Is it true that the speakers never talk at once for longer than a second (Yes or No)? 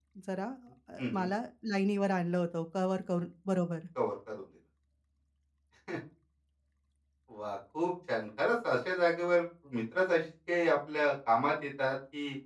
Yes